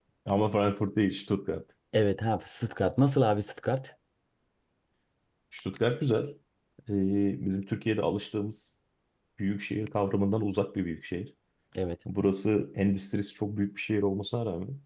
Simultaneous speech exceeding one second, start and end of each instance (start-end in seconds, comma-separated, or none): none